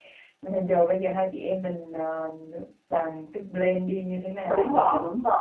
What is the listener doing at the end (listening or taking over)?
taking over